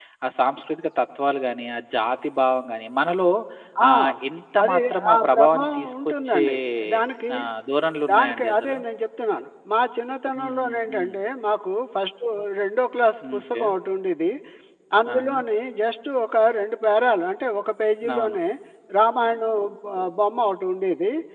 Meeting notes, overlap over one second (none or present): present